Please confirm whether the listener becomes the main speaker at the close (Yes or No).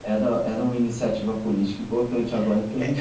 Yes